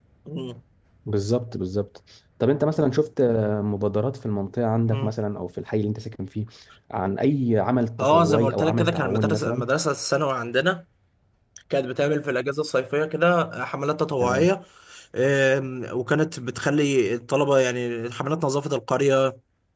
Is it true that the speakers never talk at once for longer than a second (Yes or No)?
No